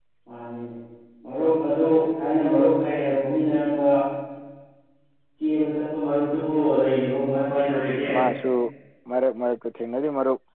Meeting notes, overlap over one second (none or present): none